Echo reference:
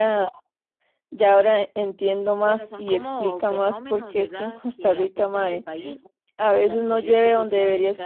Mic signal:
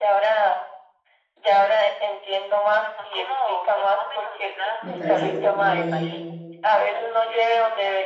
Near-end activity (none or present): present